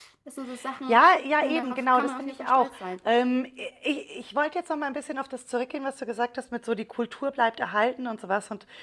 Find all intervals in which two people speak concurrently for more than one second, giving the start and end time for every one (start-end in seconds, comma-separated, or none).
1.4-2.7